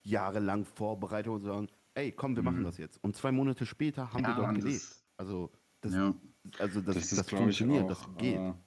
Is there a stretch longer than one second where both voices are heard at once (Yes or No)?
Yes